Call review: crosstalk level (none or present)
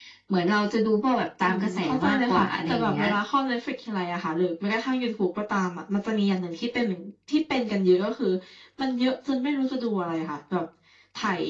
present